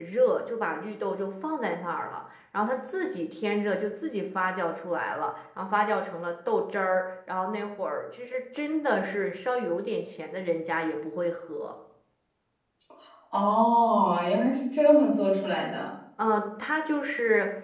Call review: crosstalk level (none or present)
none